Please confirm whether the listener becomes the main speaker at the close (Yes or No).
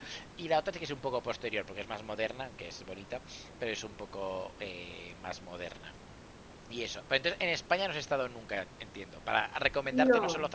No